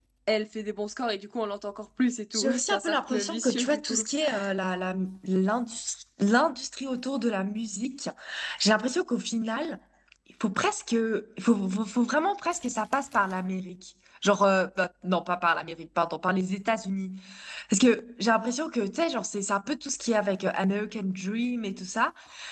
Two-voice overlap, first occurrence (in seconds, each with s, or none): 2.3 s